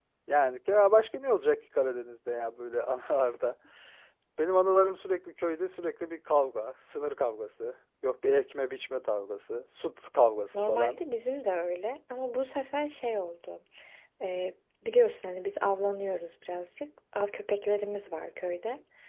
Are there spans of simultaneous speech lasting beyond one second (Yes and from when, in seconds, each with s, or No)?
No